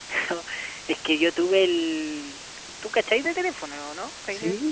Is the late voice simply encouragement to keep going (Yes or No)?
No